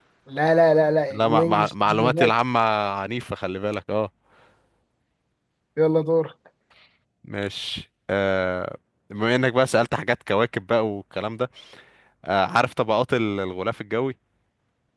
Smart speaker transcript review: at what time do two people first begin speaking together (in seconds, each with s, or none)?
1.1 s